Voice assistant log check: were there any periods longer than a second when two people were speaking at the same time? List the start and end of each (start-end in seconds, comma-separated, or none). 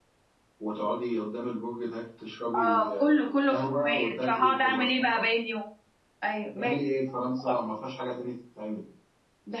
2.5-5.2